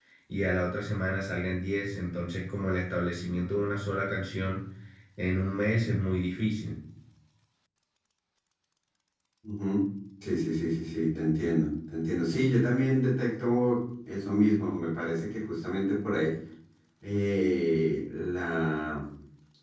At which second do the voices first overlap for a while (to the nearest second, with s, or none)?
none